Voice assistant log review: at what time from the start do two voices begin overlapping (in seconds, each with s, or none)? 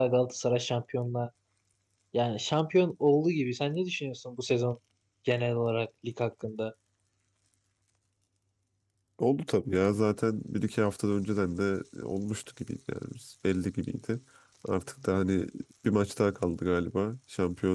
none